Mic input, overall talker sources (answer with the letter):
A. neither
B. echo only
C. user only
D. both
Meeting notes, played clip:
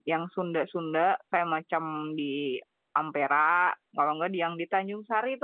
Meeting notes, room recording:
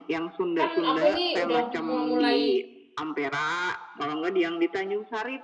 D